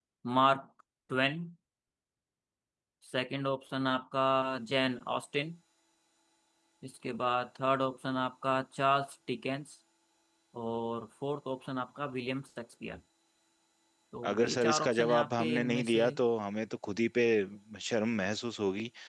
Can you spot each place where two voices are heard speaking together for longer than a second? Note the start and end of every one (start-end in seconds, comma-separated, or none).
14.3-16.0